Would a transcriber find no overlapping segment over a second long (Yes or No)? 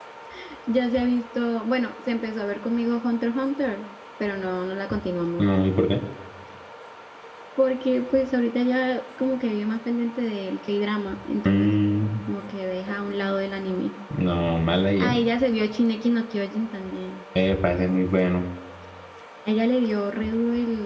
Yes